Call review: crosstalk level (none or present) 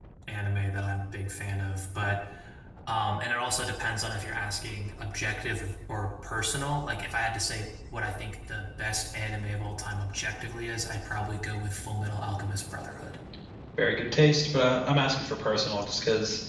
none